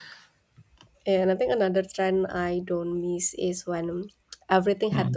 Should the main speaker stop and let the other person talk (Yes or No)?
No